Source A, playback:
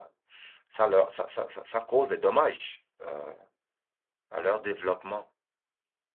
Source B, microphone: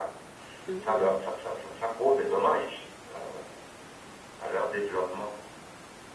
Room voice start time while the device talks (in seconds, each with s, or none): 0.7 s